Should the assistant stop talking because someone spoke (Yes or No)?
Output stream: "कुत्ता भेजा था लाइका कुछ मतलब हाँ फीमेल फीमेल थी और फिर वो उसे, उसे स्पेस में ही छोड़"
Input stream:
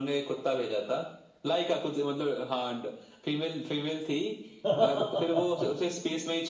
Yes